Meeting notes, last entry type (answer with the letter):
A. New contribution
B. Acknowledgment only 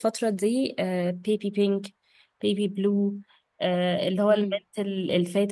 B